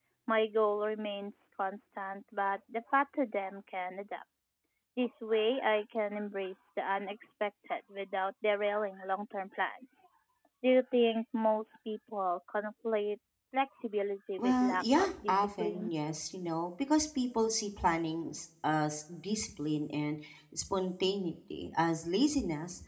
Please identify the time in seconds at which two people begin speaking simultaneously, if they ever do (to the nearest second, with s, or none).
14 s